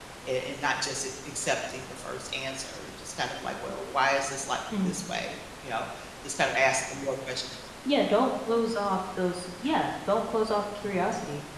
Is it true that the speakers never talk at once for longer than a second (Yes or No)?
Yes